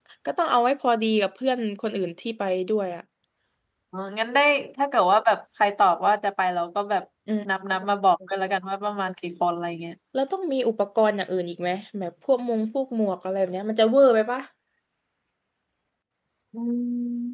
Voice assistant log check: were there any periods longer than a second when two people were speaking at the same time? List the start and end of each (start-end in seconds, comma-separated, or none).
none